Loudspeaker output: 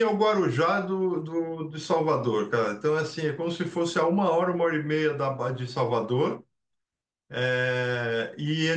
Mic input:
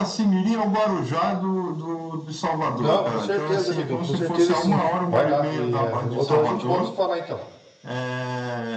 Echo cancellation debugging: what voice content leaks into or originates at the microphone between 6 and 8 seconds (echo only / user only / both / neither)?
both